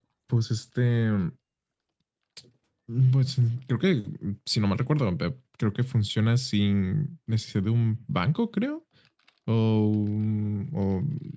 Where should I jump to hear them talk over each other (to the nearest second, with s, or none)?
none